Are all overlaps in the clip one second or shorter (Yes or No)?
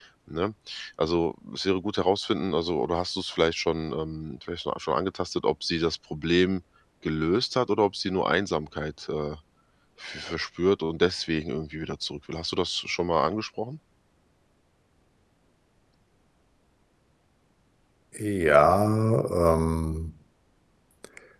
Yes